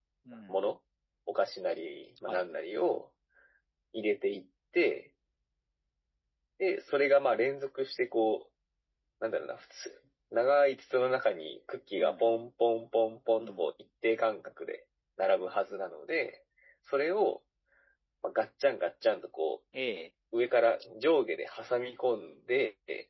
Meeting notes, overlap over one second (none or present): none